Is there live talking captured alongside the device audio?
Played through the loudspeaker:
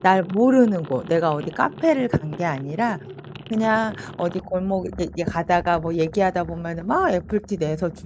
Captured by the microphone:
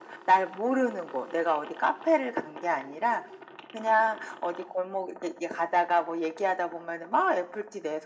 No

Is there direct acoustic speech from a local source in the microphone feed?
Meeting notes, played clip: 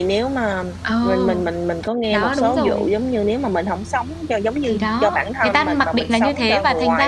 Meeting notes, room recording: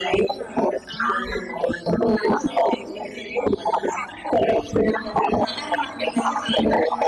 No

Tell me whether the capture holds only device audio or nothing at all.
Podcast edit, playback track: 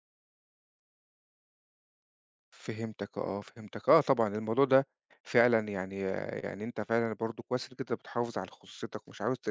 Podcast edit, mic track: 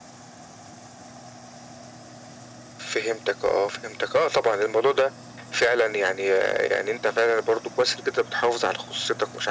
Yes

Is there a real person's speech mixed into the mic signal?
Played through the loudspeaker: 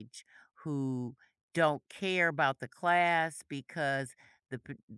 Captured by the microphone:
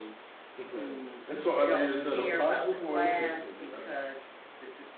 Yes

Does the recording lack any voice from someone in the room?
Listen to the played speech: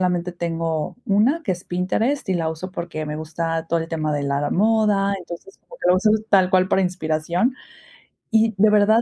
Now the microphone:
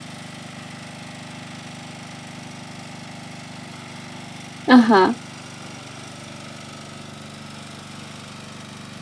No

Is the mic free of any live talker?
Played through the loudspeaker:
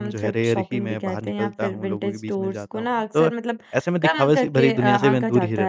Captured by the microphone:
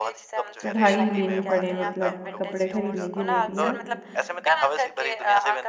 No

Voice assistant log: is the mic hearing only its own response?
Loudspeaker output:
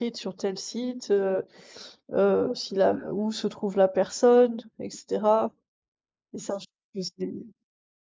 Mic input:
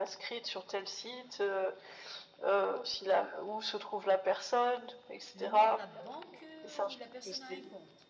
No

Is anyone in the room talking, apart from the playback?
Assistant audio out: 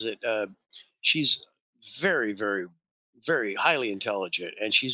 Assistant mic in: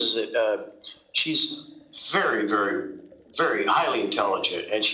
No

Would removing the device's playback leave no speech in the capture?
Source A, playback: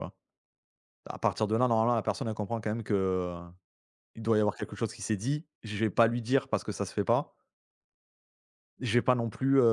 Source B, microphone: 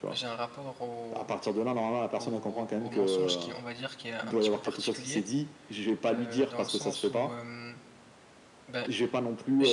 No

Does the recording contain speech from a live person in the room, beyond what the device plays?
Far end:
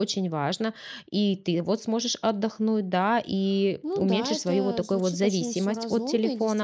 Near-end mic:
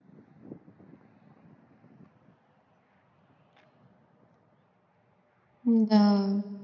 Yes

